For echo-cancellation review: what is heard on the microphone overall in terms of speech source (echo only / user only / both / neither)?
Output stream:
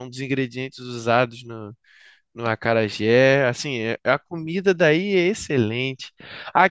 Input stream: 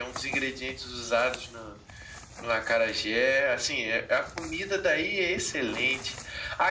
echo only